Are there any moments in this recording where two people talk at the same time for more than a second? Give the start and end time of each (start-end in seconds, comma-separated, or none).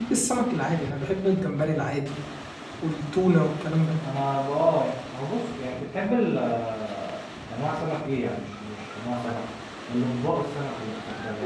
none